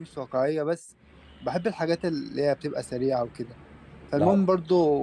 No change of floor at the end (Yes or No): Yes